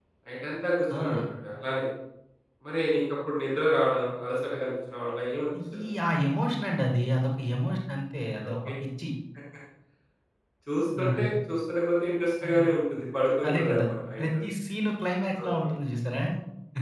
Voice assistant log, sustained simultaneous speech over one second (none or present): none